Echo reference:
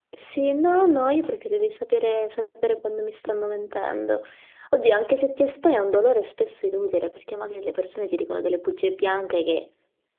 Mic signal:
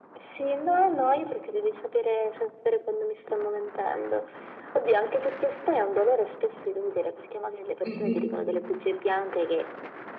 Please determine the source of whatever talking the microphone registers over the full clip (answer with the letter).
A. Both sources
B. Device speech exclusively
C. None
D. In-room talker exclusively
A